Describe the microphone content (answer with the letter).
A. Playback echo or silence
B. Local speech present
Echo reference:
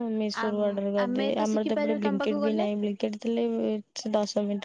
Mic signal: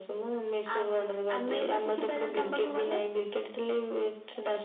A